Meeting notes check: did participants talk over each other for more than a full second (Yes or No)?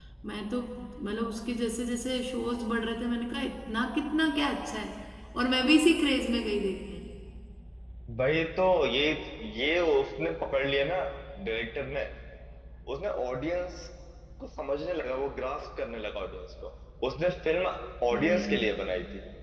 No